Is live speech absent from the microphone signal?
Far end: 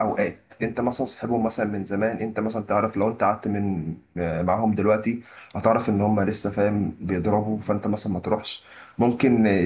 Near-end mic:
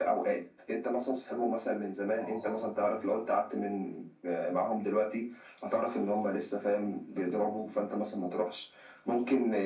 No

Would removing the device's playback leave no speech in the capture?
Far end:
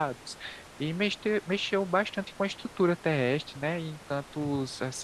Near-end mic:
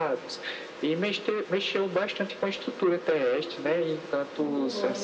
No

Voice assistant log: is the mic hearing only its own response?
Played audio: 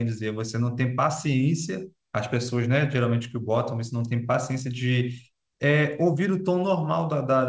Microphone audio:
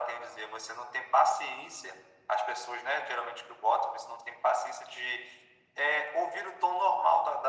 Yes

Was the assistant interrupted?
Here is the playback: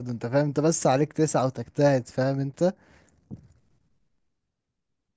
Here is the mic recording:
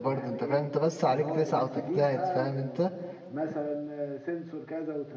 Yes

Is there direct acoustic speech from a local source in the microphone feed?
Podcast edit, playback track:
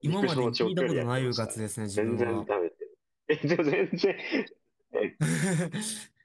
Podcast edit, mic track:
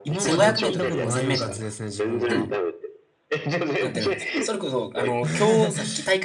Yes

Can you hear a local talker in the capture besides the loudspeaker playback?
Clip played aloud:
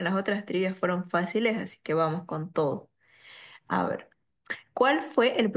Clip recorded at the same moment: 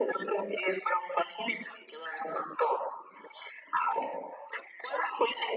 No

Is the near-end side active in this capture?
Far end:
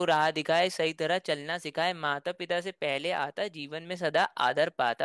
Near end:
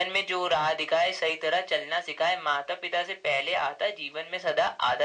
No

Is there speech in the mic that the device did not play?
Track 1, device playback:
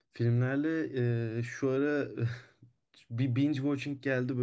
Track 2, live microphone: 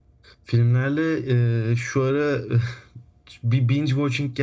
No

